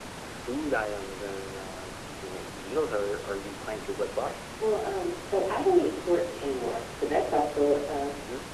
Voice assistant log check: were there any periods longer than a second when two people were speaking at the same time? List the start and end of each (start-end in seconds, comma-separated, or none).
none